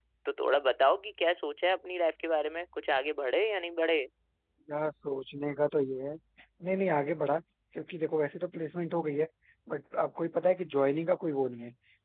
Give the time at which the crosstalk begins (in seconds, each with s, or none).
none